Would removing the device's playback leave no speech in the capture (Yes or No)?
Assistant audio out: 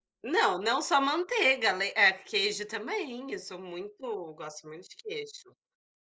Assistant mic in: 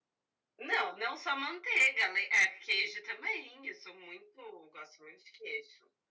Yes